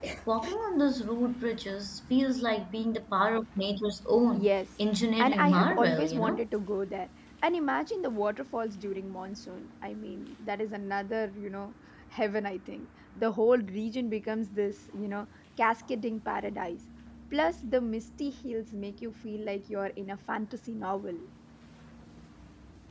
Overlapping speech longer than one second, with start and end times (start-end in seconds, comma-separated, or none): 5.2-6.4